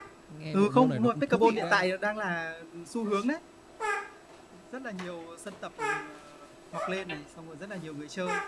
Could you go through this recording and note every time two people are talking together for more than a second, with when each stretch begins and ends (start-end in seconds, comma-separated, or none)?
0.5-1.9